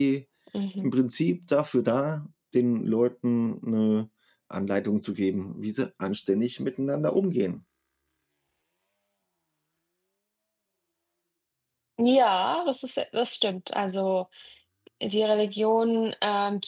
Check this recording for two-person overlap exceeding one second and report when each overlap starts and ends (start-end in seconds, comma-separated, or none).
none